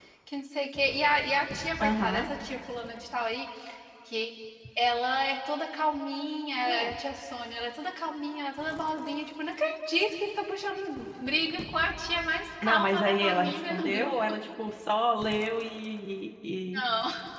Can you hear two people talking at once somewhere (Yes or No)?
Yes